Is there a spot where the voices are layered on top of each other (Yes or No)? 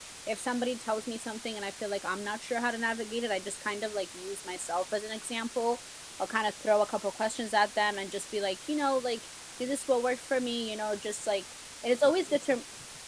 No